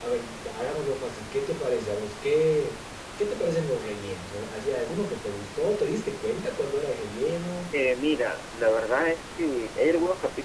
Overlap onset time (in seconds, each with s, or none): none